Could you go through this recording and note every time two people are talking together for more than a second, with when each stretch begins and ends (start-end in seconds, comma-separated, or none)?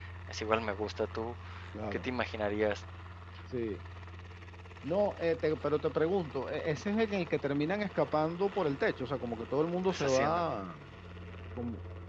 none